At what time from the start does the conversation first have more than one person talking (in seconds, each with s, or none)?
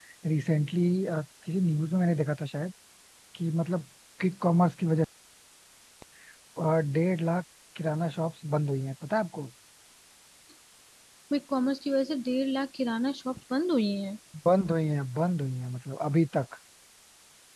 none